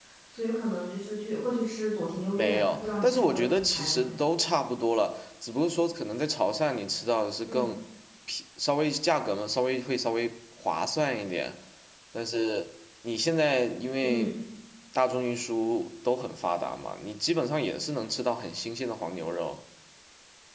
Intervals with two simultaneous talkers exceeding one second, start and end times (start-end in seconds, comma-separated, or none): 2.4-4.1